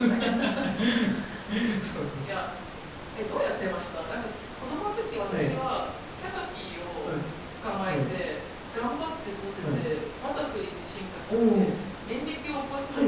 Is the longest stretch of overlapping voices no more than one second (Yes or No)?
Yes